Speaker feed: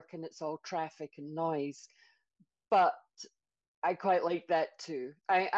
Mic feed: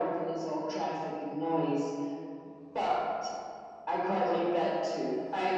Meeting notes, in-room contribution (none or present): none